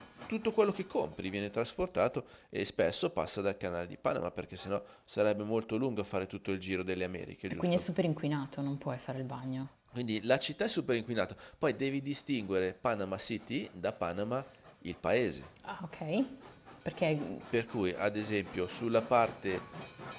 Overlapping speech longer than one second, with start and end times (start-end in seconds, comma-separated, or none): none